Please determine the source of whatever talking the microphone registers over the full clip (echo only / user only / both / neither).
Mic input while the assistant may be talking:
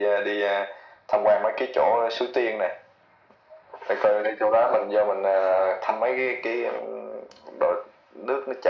echo only